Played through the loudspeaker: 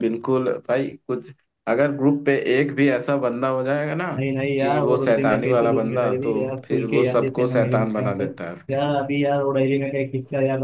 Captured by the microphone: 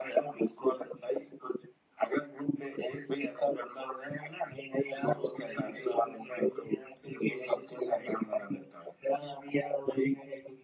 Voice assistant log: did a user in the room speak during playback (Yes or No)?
No